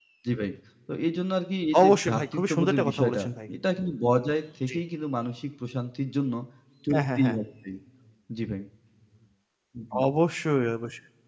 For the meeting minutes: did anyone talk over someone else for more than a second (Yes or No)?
Yes